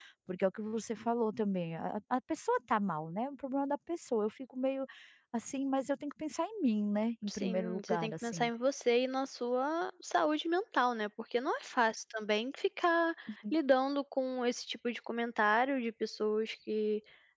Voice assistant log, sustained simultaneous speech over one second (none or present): present